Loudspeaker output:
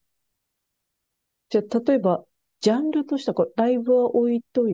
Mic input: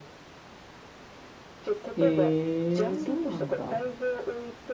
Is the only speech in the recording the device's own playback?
No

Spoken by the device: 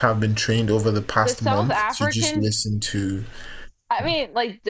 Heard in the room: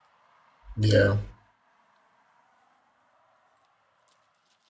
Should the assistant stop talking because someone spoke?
Yes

